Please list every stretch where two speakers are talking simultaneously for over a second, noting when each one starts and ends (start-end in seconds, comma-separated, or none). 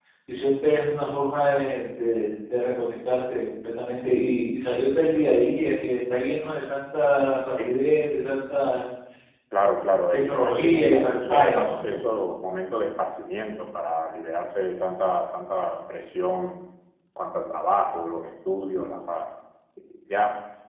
10.1-11.8